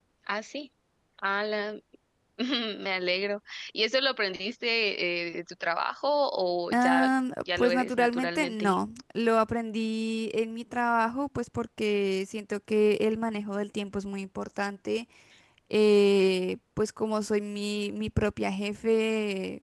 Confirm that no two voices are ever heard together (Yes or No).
No